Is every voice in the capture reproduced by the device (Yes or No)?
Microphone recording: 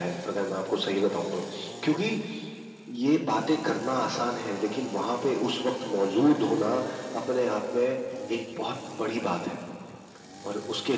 Yes